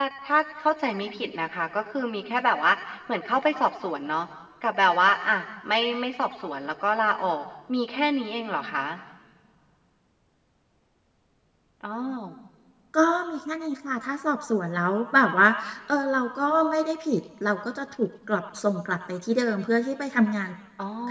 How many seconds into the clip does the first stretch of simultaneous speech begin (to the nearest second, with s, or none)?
none